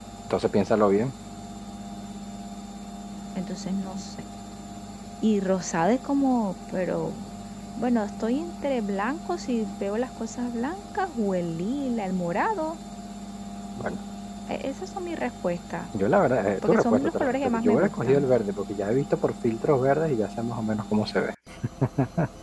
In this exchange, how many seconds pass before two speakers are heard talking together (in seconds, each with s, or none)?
16.6 s